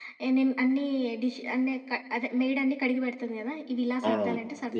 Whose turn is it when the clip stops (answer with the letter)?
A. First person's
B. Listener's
B